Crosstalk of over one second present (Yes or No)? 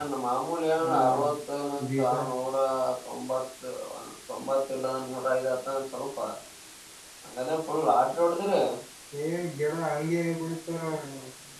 No